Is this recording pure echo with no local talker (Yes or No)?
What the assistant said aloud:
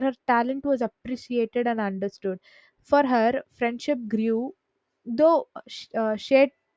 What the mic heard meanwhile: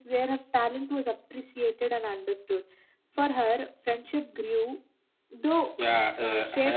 No